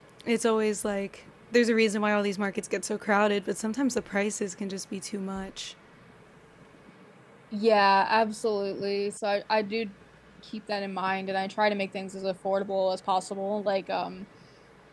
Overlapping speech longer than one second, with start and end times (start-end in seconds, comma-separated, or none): none